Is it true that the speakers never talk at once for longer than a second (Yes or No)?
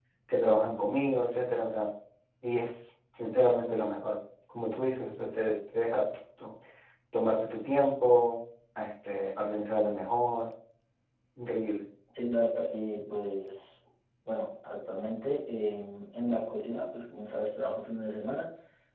Yes